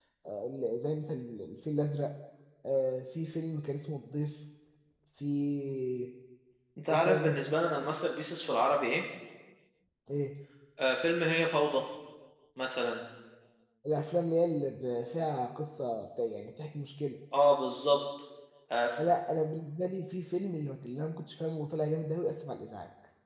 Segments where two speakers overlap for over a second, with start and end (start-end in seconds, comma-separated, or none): none